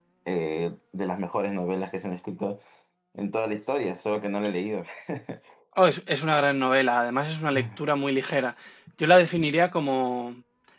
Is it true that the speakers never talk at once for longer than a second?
Yes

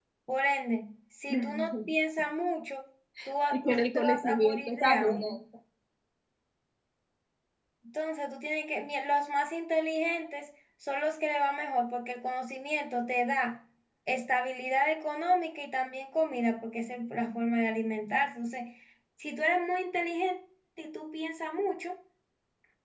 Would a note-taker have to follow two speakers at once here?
Yes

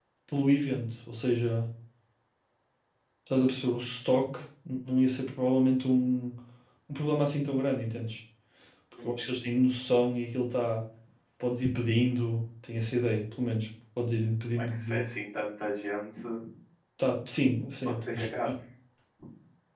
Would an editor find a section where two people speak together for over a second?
No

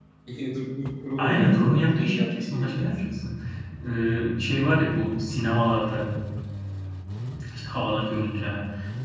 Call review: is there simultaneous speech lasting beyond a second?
Yes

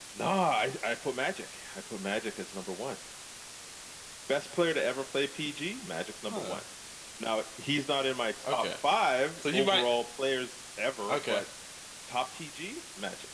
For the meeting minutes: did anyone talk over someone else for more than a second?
No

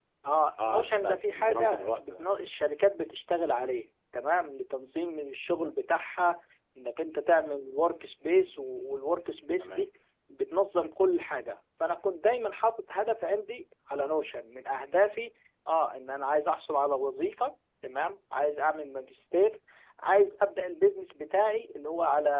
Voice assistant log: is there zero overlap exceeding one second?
No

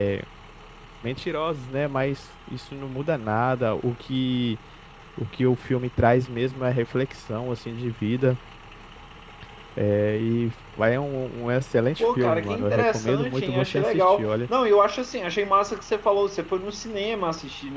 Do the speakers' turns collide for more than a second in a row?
Yes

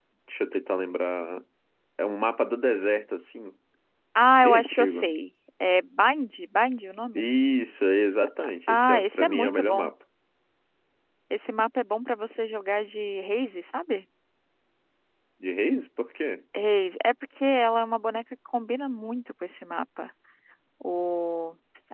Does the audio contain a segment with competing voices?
Yes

